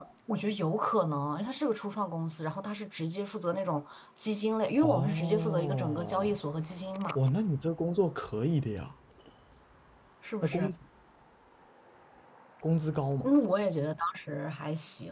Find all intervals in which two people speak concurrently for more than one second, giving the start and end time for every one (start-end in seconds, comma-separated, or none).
4.8-6.4